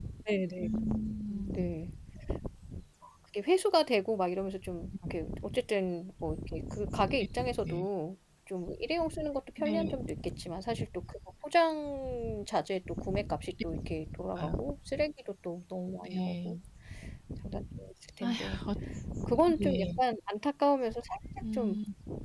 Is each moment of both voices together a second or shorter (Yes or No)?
Yes